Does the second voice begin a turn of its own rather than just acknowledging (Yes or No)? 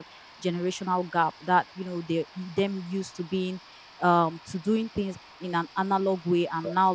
No